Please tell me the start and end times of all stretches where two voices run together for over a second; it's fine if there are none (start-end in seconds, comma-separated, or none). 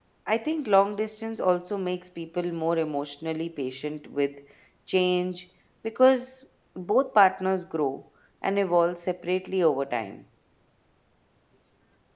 none